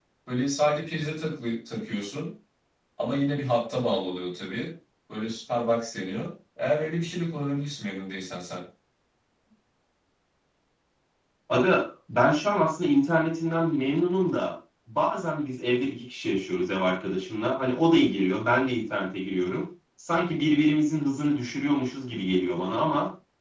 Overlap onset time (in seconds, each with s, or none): none